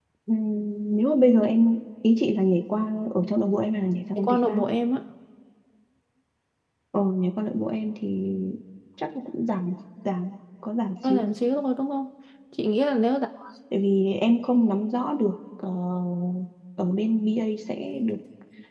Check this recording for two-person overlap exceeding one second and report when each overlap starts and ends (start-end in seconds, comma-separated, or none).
none